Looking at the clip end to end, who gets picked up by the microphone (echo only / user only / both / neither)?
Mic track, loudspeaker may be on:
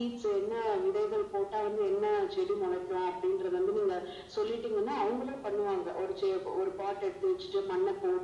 echo only